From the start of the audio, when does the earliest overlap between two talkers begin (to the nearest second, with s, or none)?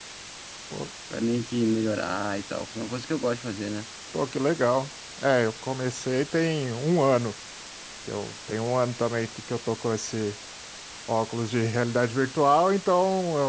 none